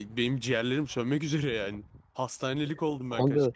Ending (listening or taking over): taking over